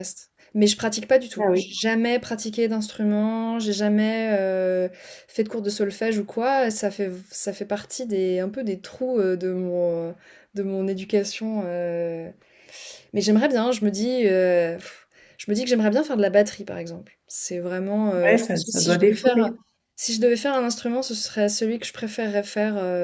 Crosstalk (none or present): present